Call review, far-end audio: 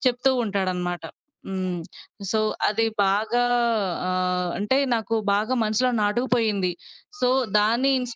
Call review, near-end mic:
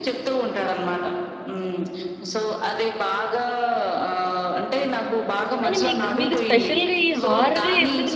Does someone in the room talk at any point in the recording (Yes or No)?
Yes